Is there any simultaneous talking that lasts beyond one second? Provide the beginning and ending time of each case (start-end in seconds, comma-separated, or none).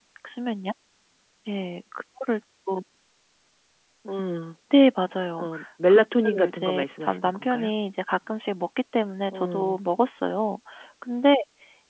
5.9-7.7